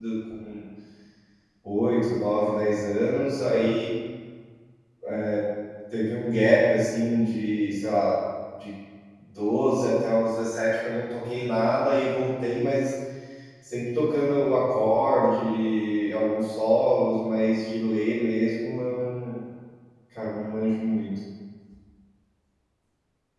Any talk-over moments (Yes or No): No